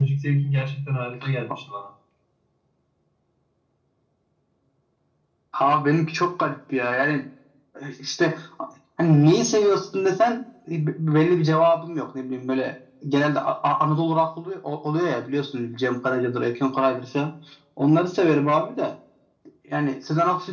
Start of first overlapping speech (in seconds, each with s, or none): none